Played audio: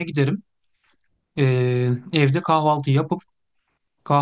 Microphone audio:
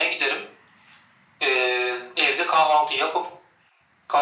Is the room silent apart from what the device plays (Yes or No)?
Yes